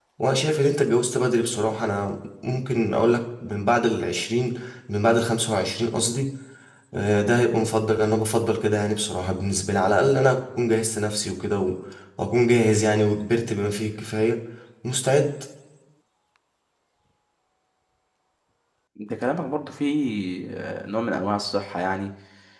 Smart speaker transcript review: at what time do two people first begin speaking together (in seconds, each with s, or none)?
none